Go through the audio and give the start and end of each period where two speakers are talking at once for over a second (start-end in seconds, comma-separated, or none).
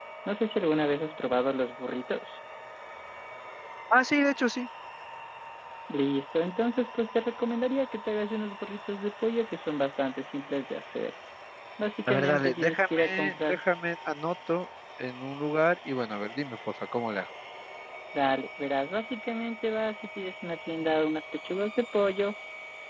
12.1-13.6